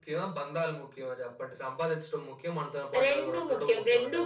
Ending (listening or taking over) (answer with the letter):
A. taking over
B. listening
A